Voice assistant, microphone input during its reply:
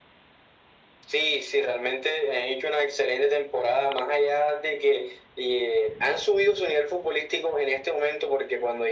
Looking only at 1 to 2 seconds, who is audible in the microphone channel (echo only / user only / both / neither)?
echo only